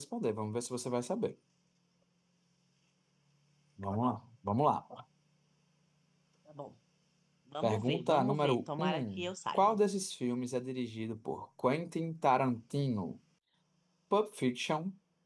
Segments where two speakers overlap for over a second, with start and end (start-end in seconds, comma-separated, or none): 7.6-9.8